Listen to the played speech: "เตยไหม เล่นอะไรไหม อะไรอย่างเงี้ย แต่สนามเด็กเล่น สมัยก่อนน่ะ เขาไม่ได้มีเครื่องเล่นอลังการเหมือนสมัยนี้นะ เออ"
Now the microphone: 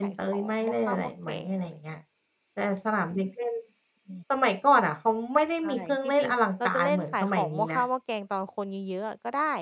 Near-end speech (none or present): present